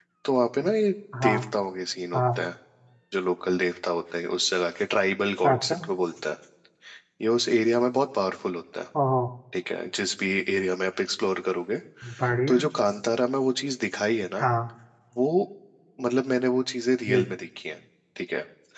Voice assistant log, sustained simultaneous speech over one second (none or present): none